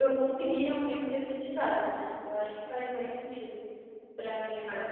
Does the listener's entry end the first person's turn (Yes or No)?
Yes